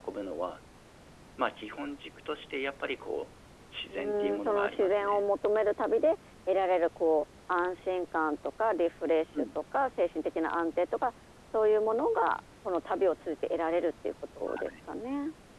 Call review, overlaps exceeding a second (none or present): present